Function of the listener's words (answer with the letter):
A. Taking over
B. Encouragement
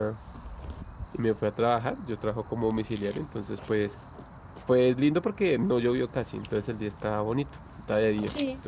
B